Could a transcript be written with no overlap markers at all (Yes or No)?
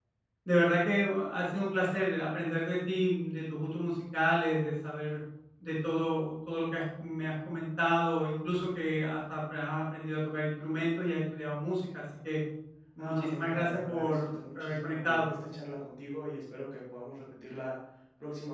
No